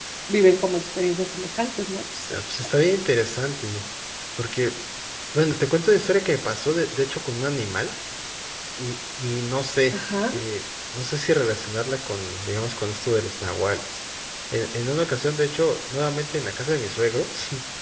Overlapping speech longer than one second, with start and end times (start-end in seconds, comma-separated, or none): none